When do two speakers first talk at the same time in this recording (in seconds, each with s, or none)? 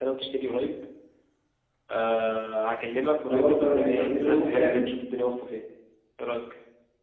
3.3 s